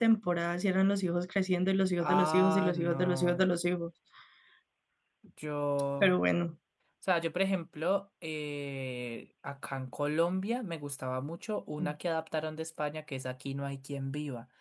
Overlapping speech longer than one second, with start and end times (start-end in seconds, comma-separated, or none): 2.0-3.5